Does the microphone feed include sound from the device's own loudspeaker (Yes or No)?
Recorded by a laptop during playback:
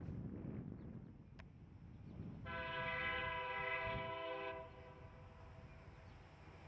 No